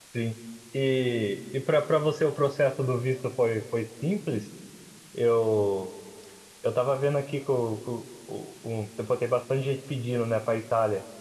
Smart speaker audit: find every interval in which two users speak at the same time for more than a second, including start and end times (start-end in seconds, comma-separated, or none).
none